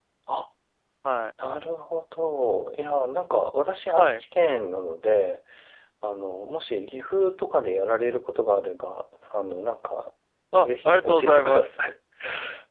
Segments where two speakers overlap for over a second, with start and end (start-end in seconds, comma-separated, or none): 10.6-11.8